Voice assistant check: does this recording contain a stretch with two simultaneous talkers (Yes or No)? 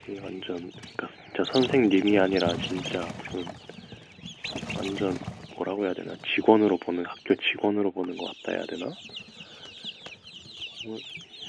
No